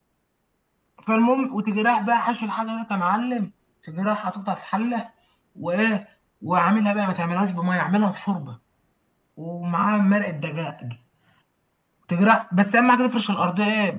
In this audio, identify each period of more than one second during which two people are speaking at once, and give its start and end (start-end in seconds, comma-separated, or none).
none